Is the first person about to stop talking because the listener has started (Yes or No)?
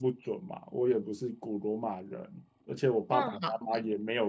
No